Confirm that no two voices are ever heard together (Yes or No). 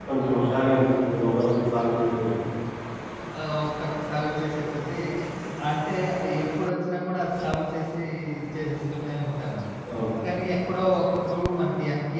Yes